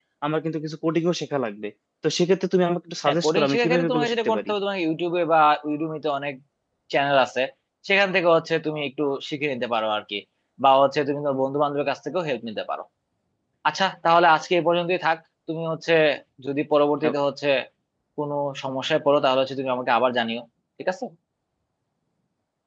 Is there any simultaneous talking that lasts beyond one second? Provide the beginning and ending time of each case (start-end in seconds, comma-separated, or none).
3.0-4.5